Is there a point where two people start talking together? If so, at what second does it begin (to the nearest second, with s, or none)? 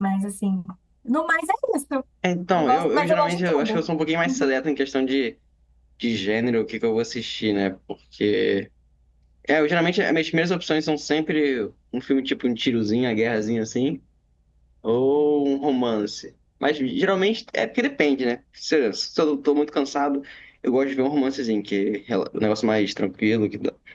3 s